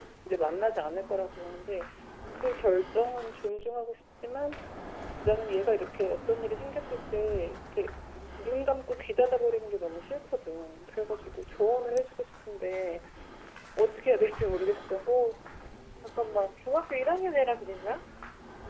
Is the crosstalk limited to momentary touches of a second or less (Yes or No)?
Yes